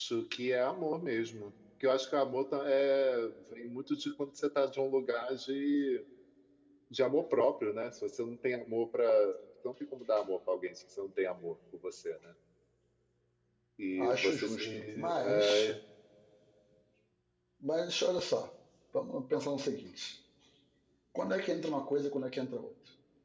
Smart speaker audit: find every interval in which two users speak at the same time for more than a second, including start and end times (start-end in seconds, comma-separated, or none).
14.1-15.8